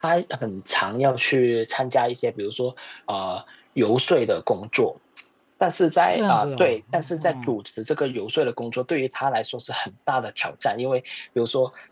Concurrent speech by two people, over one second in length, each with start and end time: 6.1-7.6

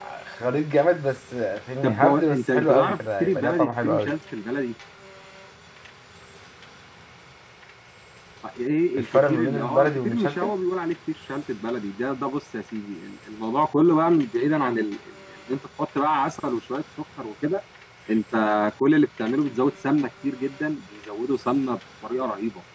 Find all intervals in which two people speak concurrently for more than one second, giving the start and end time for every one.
1.8-4.1, 9.0-10.5

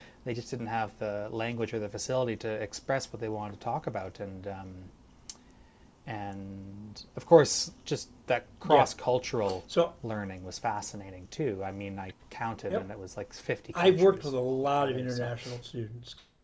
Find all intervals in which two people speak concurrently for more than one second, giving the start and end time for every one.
13.7-15.3

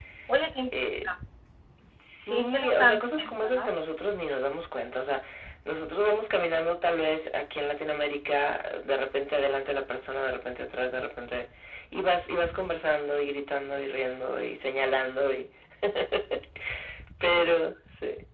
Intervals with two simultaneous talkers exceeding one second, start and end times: 2.3-3.7

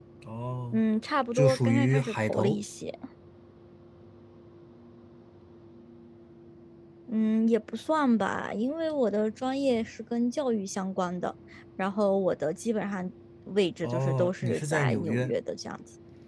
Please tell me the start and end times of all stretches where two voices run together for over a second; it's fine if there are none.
1.4-2.6, 13.8-15.3

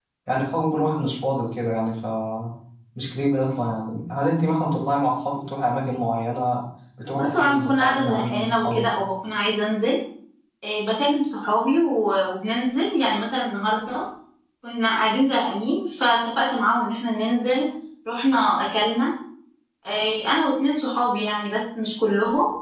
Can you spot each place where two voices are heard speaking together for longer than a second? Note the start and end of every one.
7.2-8.9

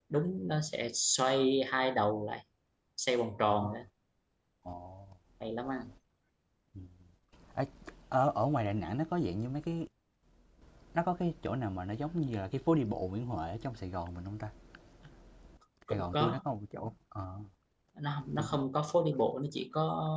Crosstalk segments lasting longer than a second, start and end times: none

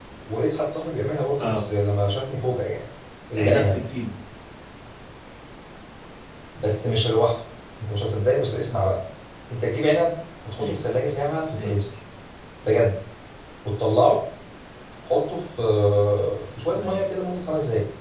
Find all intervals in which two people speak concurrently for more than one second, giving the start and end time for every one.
none

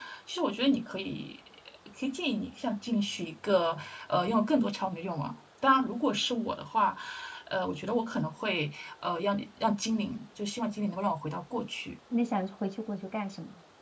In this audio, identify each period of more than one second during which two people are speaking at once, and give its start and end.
none

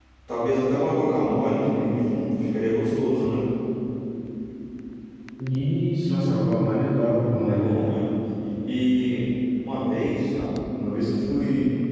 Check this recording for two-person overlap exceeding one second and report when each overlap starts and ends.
none

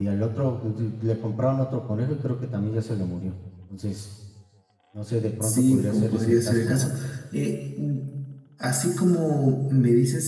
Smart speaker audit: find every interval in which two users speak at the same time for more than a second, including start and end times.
5.4-6.9

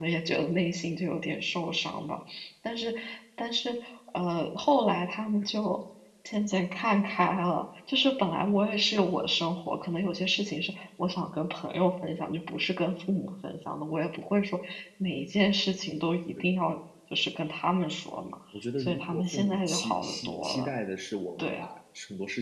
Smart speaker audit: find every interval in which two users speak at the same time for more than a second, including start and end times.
18.8-20.7

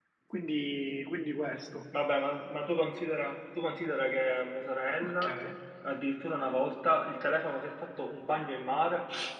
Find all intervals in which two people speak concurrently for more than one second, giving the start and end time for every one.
none

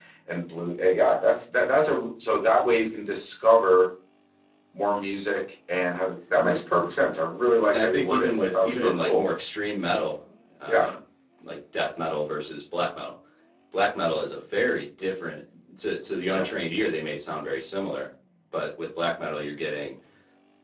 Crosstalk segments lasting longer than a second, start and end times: 7.7-9.2

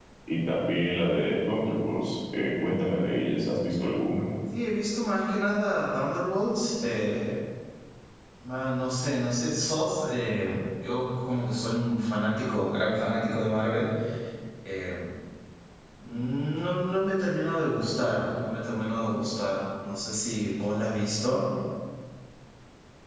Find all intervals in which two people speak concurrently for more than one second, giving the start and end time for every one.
none

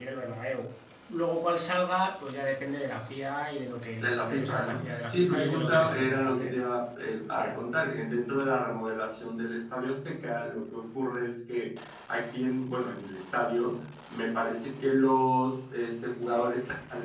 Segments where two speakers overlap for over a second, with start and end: 4.0-6.5

